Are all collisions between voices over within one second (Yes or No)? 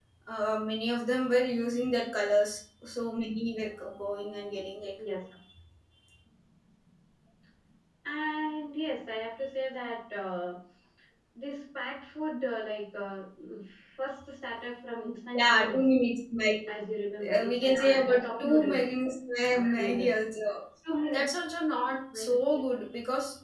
No